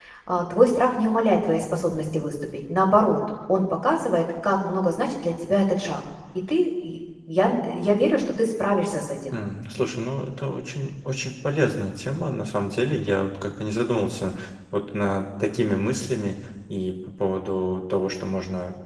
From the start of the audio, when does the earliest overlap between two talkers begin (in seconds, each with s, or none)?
none